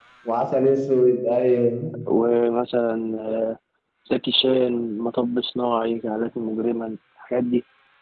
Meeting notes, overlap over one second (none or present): none